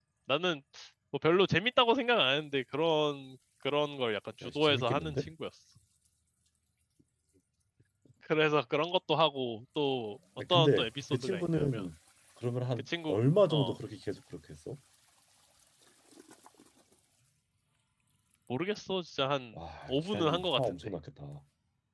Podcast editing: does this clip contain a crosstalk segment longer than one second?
Yes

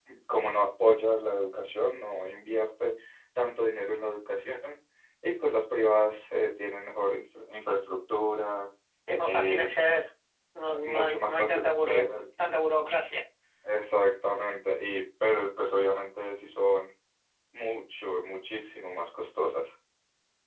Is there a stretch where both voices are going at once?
Yes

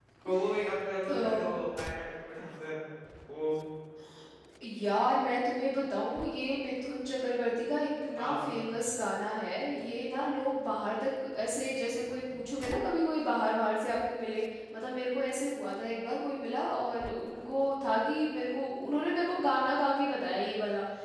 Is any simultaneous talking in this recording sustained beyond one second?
No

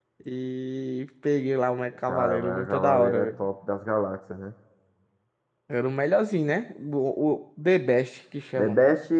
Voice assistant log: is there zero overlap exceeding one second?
No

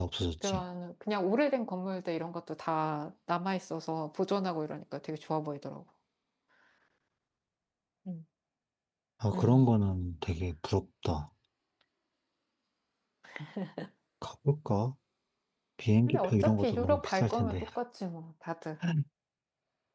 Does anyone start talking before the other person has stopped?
Yes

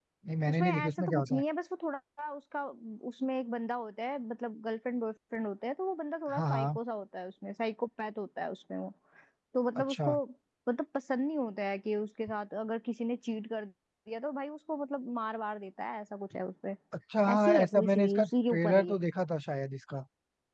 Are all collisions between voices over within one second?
No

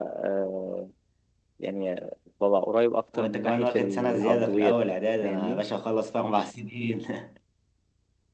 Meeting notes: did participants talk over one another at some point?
Yes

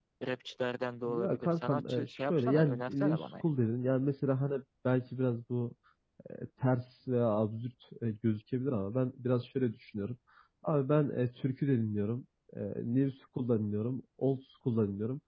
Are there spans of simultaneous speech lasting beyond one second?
Yes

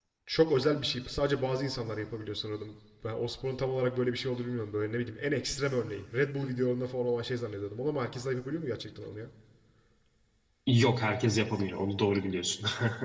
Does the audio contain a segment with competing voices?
No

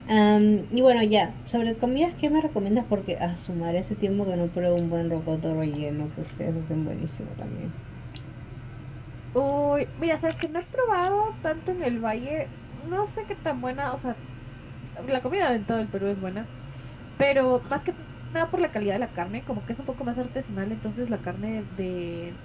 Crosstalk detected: No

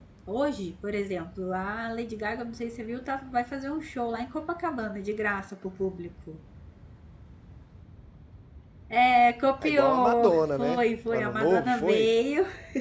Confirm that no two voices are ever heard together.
No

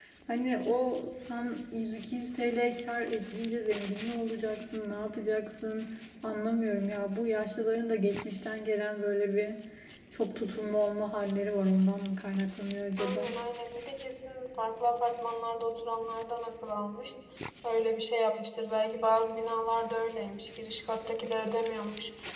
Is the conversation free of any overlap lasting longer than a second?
Yes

